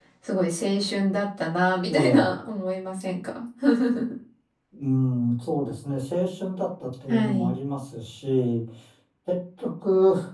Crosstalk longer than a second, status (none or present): none